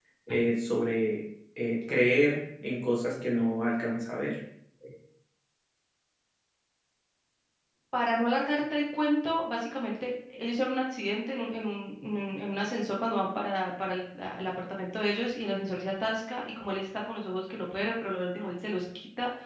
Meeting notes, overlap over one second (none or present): none